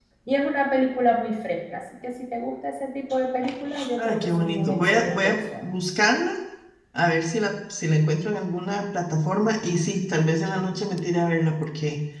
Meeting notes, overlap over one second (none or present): present